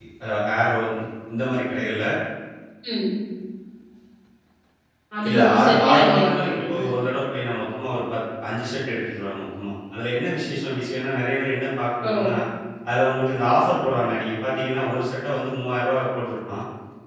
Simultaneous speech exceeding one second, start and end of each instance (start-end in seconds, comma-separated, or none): 5.3-6.8